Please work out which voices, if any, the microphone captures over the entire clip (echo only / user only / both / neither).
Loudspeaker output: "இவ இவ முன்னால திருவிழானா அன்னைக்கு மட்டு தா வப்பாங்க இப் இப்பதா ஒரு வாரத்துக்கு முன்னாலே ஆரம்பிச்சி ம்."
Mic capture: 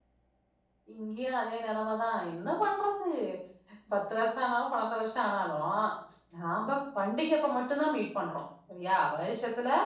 user only